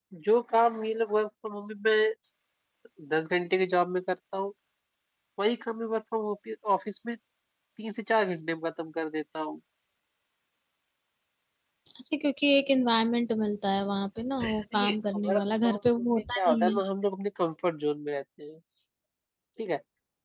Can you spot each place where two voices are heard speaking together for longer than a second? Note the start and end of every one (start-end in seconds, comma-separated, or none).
14.4-16.8